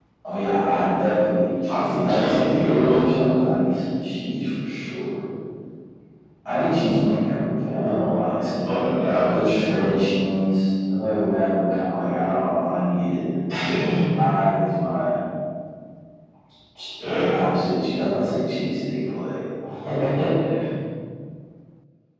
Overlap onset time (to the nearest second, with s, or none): 2 s